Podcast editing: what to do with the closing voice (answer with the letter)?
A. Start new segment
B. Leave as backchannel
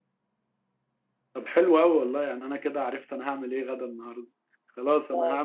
B